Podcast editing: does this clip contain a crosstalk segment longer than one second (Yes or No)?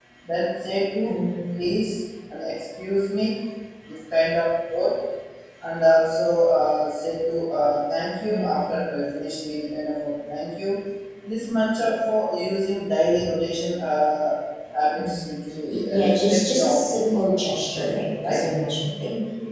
Yes